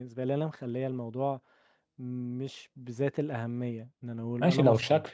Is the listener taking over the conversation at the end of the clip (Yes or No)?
Yes